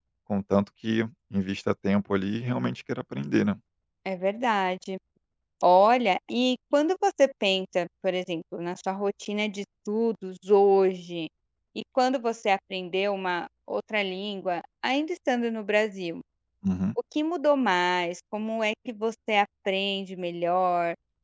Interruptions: none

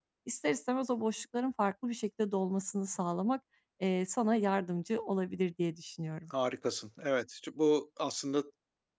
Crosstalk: none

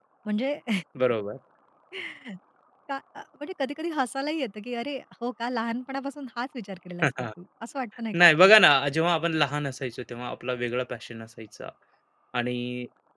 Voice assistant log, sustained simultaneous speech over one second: none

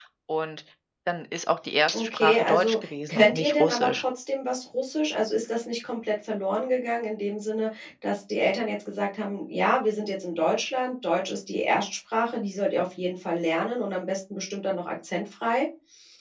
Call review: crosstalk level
present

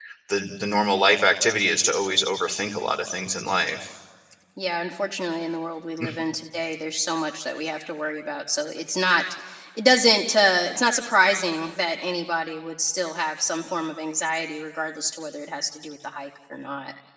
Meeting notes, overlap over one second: none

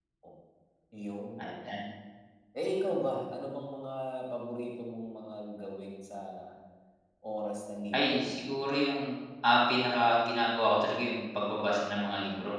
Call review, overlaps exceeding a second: none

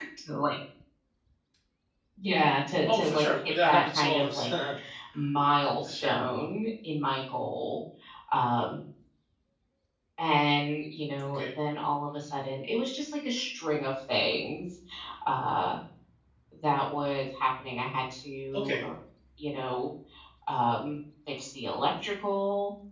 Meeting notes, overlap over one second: present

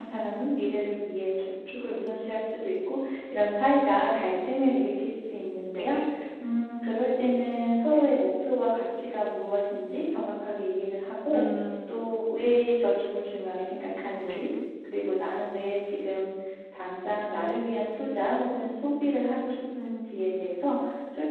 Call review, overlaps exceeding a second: none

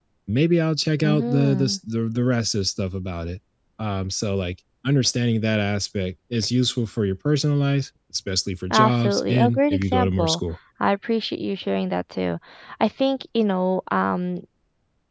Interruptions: present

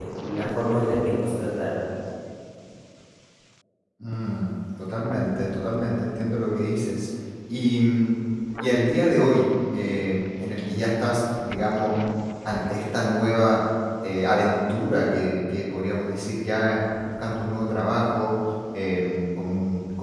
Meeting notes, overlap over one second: none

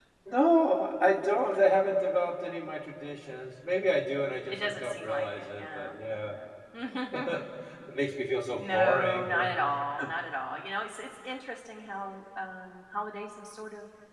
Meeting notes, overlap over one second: present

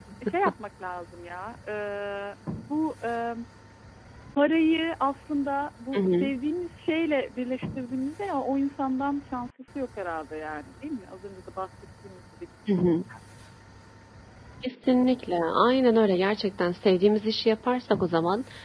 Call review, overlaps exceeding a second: none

